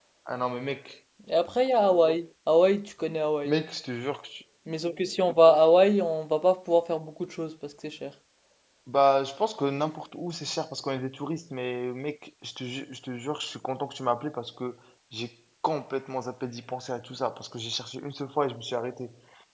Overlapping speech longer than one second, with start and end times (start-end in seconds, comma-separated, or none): none